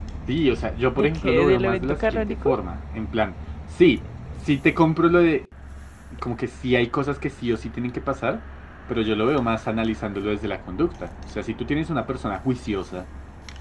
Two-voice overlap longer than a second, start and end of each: 0.9-2.5

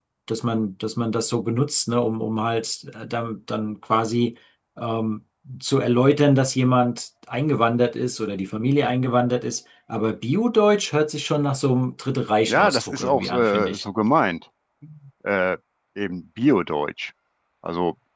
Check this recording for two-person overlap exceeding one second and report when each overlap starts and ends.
12.5-13.8

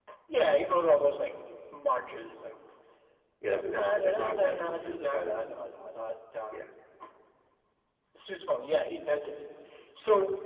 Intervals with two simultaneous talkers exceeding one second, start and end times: 3.5-5.5

